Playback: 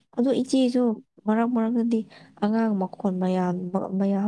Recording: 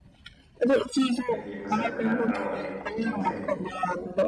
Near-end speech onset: 1 s

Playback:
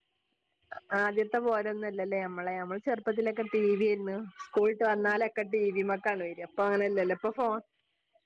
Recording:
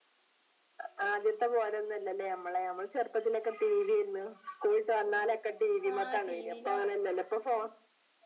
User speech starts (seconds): 6 s

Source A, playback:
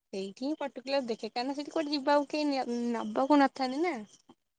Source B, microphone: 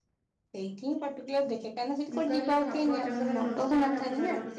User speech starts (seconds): 2 s

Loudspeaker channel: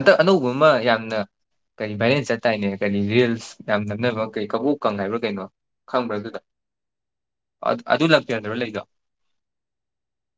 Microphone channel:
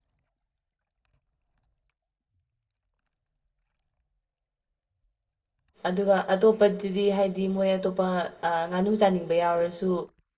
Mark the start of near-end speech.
6 s

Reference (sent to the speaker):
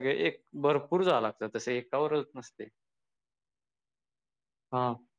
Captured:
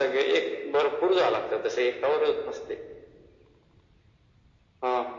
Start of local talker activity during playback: none

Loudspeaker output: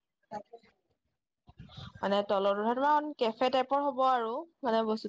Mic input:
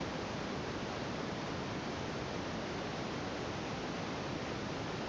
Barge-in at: none

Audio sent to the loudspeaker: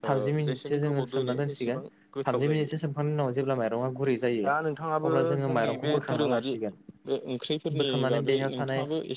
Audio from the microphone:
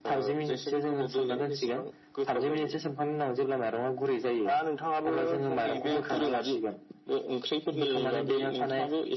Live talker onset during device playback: none

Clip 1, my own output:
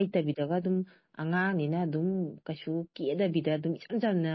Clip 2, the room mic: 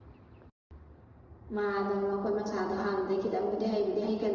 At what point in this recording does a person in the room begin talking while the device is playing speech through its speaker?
2 s

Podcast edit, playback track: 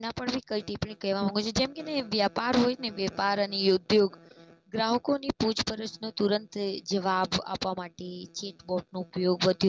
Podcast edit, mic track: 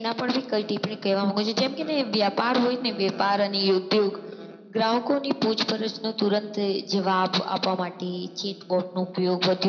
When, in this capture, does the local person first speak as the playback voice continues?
none

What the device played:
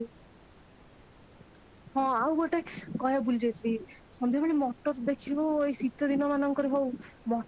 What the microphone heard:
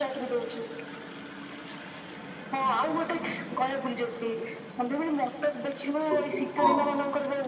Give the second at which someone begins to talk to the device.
6 s

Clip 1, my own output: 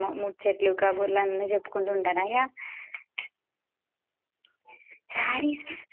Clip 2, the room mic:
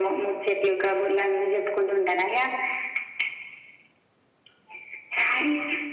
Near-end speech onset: none

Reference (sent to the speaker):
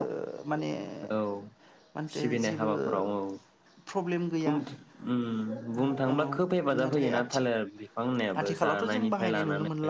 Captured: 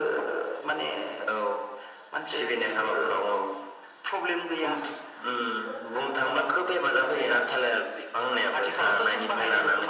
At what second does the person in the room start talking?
none

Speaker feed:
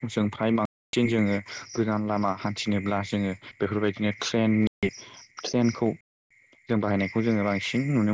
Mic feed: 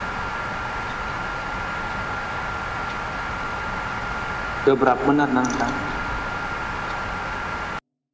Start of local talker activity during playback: 5 s

